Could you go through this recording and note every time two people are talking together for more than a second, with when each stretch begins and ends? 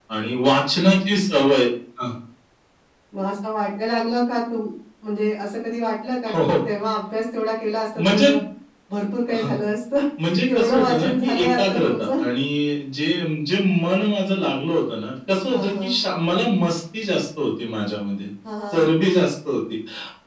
10.5-12.1

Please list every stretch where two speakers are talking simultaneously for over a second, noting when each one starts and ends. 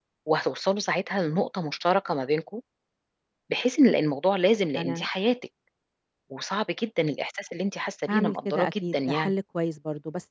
8.1-9.3

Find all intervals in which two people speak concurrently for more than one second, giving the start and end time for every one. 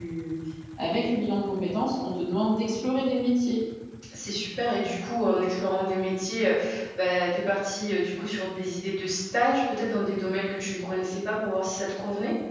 none

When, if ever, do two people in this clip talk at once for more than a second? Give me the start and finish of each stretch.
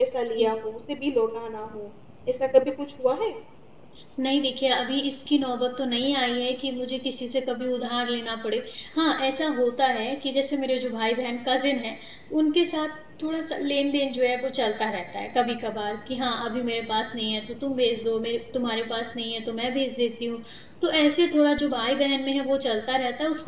none

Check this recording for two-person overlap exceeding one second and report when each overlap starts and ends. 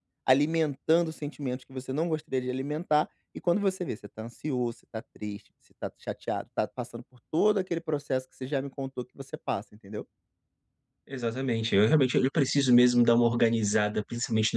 none

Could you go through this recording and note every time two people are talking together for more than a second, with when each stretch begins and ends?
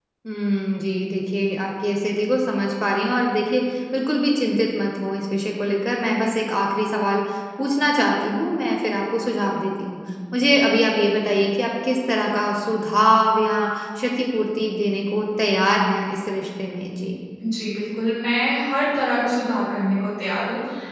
none

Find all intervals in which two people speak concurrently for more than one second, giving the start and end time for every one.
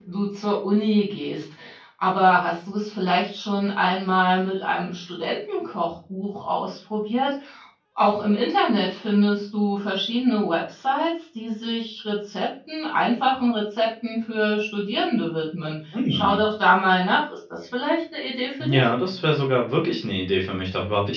none

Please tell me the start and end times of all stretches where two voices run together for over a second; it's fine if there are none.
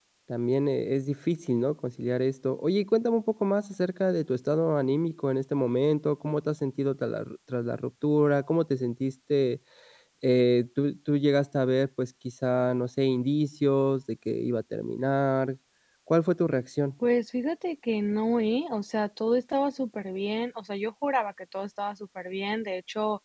none

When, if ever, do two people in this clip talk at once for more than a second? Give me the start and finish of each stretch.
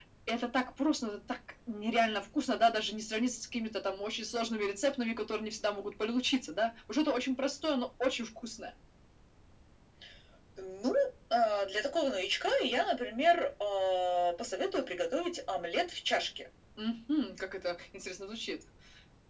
none

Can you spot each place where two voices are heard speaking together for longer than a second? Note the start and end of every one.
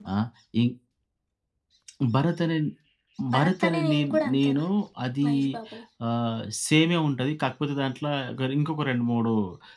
3.3-4.6

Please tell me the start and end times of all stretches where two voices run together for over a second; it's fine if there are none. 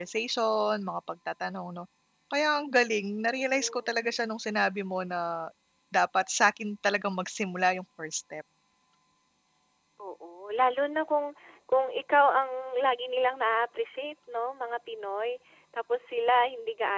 none

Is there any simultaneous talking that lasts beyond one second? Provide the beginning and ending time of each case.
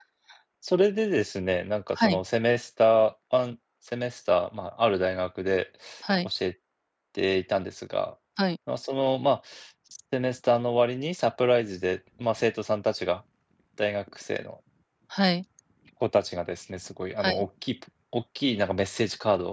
none

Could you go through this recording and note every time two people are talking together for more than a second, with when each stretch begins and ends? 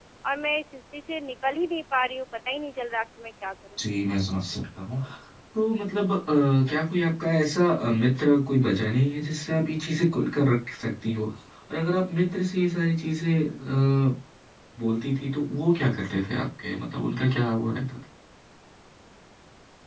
none

